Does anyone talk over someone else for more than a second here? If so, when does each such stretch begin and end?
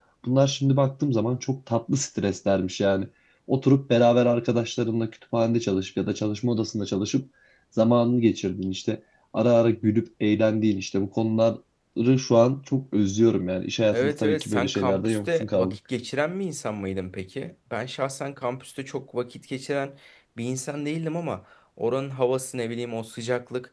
13.9-15.8

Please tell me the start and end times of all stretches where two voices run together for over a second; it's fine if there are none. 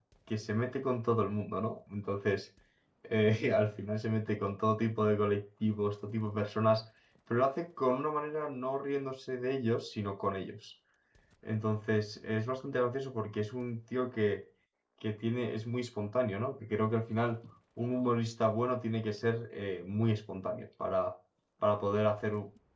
none

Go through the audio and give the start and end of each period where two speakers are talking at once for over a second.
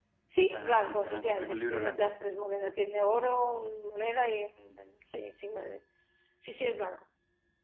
0.5-2.1

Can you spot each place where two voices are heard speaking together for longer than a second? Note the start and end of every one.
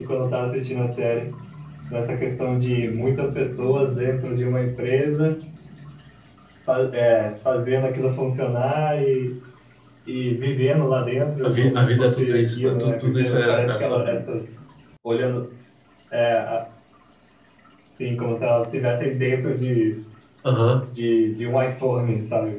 11.4-14.2

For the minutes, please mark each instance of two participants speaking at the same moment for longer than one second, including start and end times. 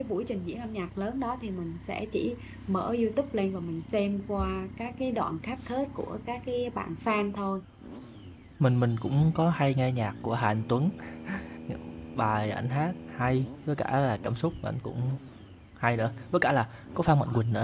none

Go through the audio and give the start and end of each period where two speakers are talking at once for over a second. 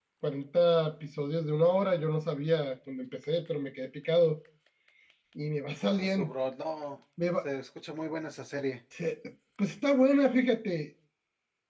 none

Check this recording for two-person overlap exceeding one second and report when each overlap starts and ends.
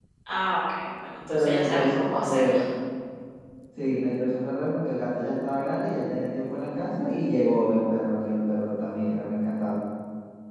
1.3-2.5

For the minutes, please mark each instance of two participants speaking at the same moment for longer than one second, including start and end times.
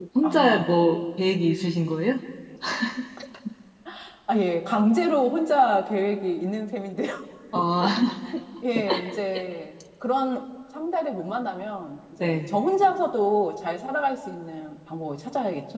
none

